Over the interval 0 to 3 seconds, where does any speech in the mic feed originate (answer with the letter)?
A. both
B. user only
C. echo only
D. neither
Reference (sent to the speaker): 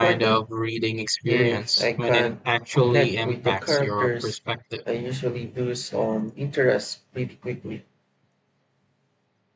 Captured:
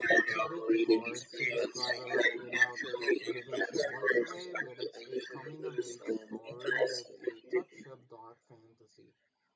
A